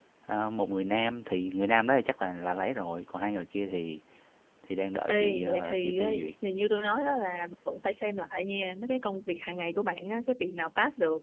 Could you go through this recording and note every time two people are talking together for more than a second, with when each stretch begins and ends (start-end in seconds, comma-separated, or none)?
5.1-6.3